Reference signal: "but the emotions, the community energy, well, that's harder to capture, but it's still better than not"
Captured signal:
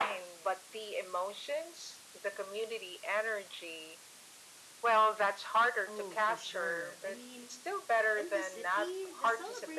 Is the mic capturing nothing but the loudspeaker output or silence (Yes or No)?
No